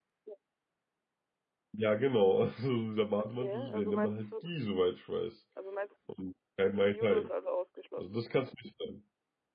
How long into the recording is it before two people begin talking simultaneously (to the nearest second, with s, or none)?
3 s